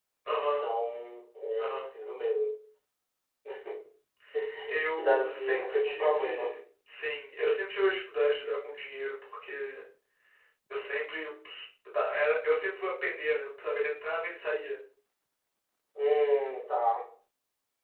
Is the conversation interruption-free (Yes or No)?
No